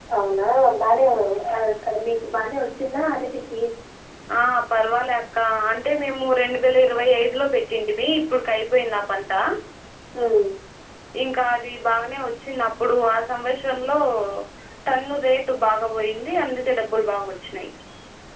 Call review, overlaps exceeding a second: none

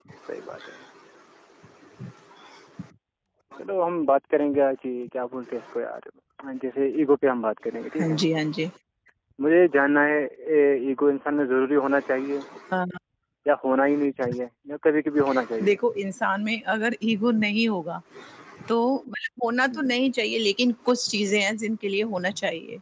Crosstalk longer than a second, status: none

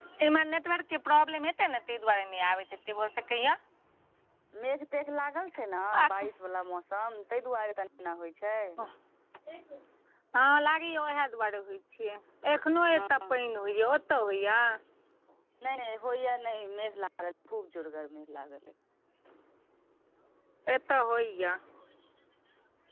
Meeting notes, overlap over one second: none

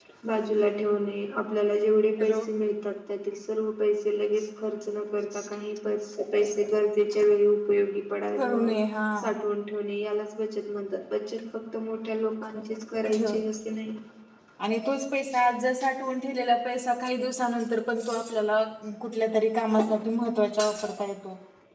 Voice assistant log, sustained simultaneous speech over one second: none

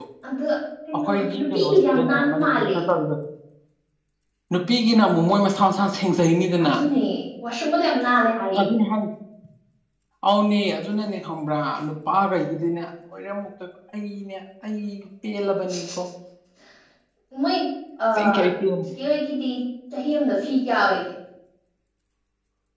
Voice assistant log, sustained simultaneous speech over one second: present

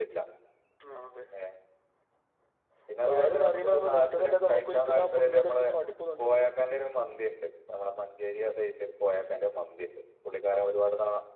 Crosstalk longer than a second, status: present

